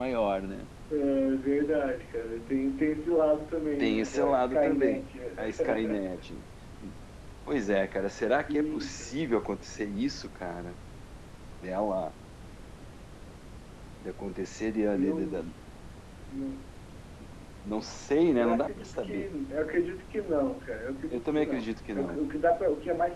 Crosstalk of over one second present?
Yes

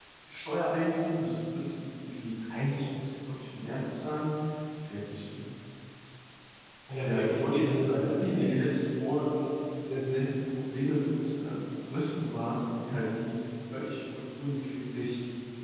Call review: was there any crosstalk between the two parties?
Yes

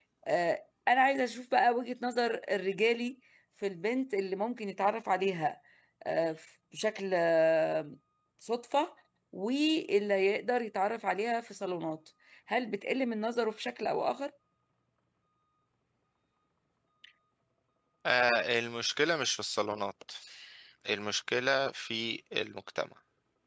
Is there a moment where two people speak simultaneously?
No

